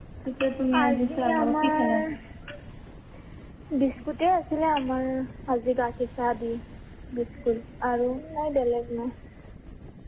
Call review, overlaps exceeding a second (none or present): present